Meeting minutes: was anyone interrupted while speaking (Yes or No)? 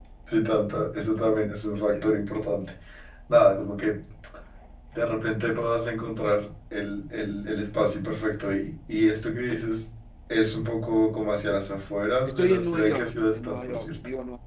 Yes